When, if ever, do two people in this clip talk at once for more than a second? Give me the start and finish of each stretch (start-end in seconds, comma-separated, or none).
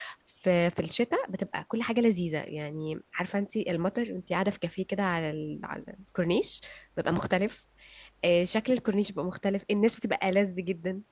none